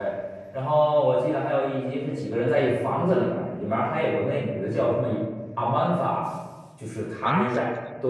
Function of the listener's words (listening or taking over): listening